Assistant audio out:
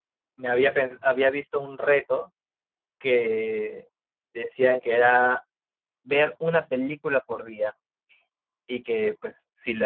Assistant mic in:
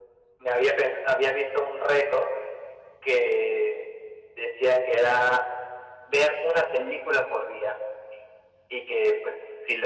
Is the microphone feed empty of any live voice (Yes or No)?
Yes